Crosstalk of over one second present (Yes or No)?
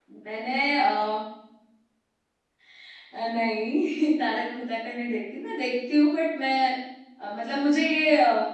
No